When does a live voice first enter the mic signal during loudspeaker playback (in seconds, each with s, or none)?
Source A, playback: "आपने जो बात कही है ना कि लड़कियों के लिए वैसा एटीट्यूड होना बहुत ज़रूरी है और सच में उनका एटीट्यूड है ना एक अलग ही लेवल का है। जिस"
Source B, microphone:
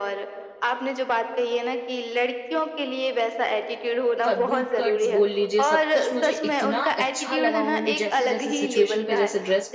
4.3 s